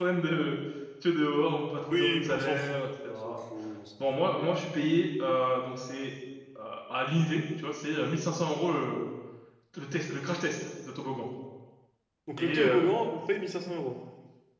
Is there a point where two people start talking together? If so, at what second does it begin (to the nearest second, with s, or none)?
2 s